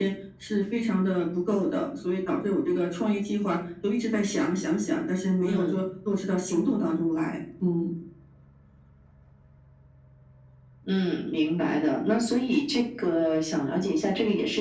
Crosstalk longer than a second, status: none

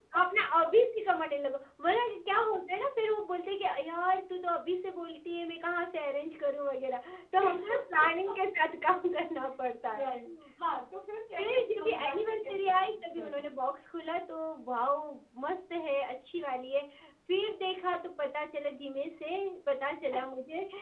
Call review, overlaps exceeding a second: present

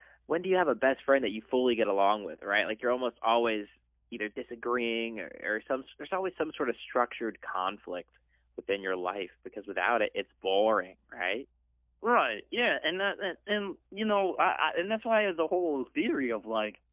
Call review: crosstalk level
none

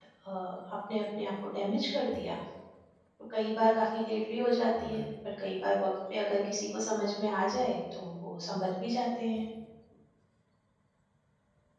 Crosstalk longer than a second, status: none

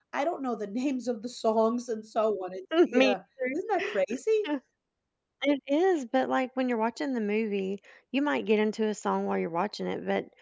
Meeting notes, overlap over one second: none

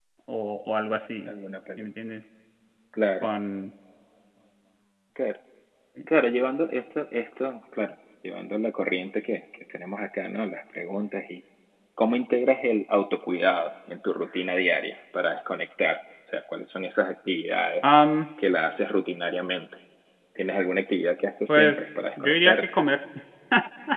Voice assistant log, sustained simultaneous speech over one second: present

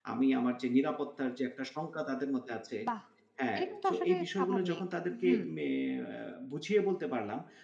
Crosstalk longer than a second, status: present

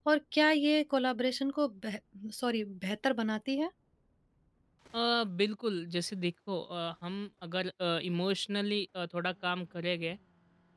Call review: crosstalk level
none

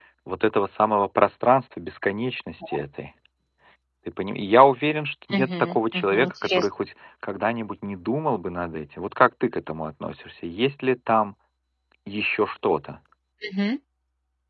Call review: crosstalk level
present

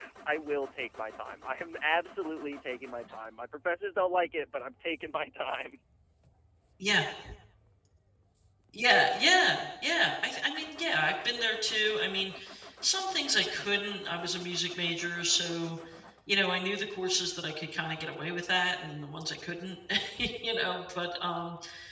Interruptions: none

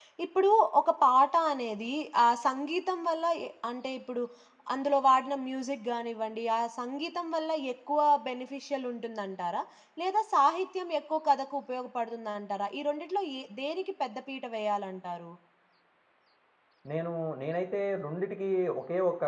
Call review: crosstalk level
none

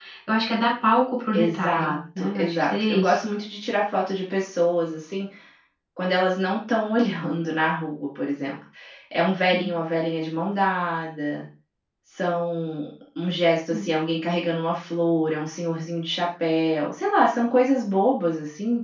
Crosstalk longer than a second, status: present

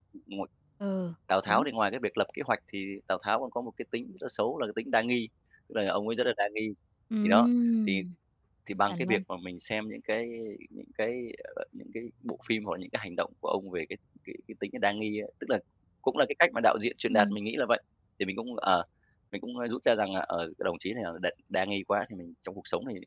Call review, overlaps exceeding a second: none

